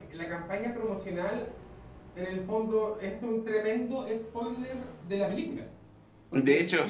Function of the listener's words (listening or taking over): listening